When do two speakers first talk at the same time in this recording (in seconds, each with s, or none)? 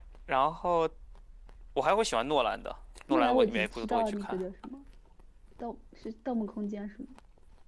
3.1 s